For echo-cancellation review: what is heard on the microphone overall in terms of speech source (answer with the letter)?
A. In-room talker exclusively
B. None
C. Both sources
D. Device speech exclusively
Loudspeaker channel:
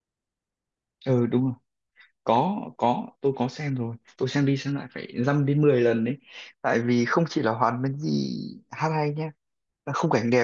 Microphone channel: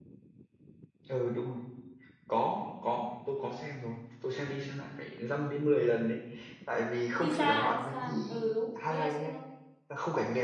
C